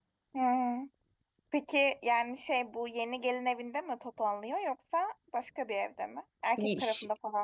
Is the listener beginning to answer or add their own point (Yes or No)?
Yes